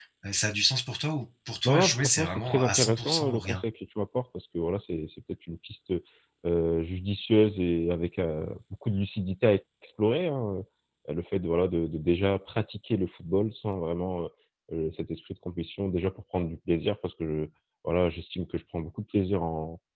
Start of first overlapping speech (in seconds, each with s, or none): 1.6 s